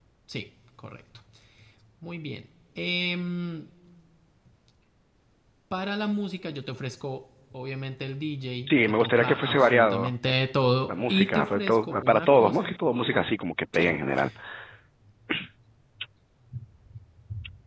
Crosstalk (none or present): present